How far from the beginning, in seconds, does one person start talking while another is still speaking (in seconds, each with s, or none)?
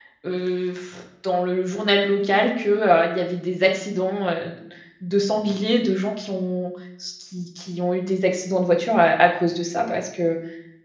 none